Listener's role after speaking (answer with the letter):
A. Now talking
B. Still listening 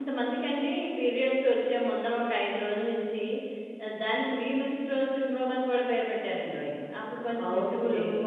B